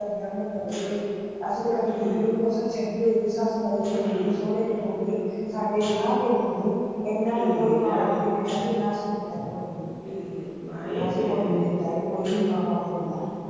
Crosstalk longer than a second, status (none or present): present